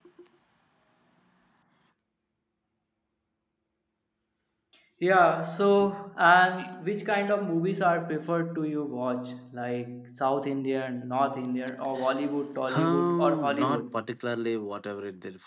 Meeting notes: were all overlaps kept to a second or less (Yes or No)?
No